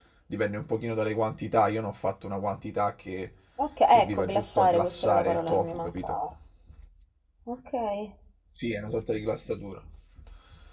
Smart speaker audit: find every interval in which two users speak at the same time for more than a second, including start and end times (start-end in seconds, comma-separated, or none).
3.9-6.2